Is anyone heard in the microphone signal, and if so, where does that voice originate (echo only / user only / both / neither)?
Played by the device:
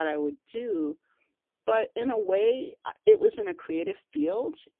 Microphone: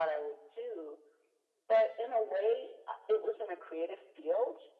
echo only